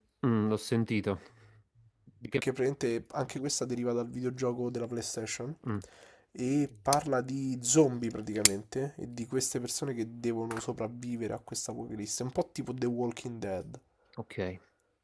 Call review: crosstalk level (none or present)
none